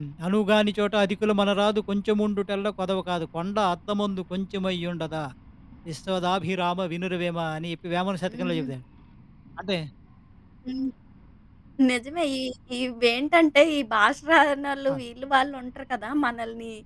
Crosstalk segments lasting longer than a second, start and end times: none

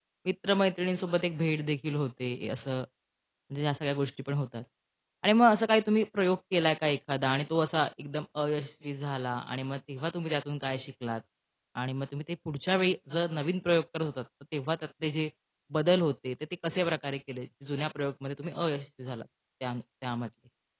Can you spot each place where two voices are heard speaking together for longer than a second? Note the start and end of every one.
none

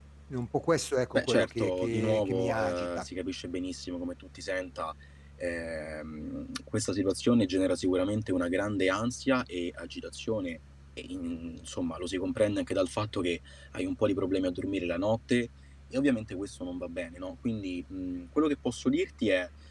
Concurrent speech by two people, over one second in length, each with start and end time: 1.1-3.1

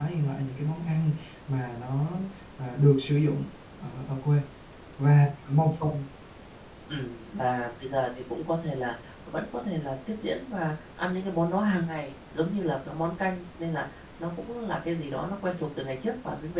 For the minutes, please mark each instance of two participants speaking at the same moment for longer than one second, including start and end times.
none

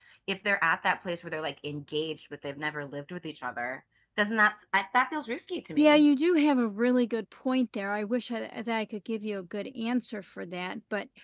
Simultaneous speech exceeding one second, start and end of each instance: none

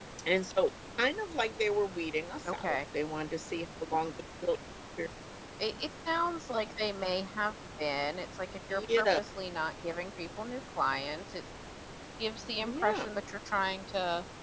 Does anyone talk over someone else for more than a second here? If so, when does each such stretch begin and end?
none

